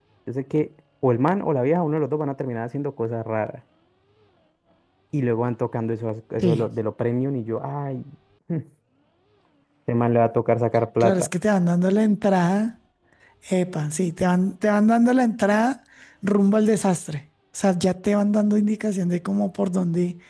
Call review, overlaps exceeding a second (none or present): none